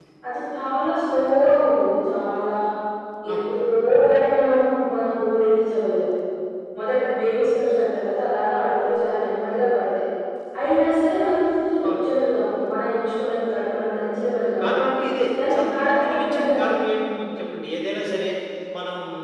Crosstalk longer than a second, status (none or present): present